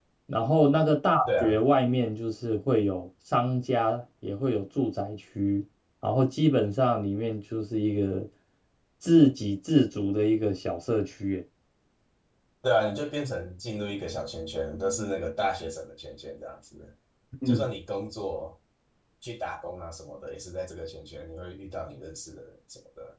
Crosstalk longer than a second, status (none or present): none